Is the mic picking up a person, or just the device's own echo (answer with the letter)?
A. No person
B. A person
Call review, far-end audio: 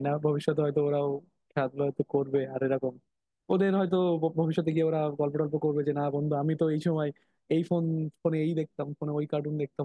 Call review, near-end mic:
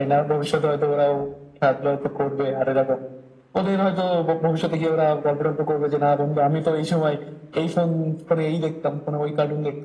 A